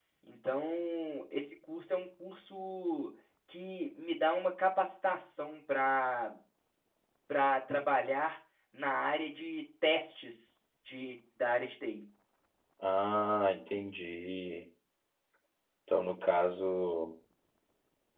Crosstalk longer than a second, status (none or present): none